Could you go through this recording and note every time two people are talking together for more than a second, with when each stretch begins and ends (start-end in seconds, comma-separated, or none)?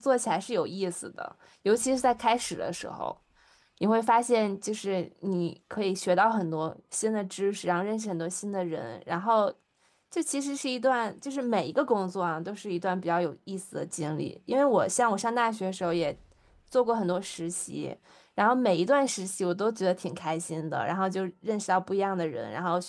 none